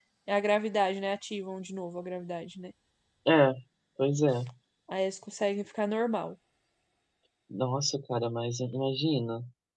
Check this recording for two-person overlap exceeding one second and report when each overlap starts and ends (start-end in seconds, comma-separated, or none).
none